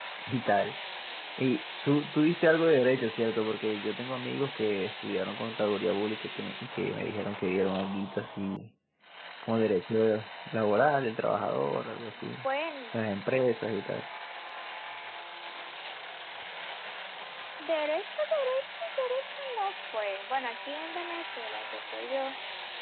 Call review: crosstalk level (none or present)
none